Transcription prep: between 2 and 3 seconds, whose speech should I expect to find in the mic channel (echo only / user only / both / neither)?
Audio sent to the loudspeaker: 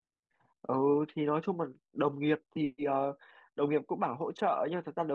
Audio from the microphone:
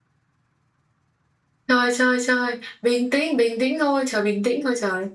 user only